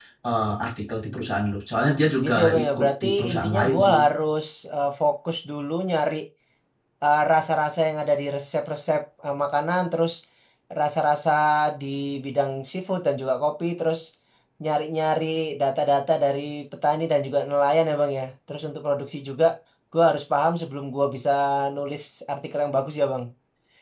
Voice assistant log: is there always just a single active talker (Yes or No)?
No